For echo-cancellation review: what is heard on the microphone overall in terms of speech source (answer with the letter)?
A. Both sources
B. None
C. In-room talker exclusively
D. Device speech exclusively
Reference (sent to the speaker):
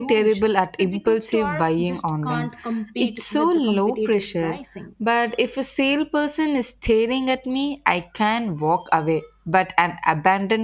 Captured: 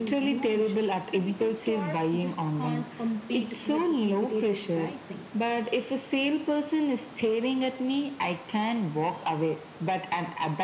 D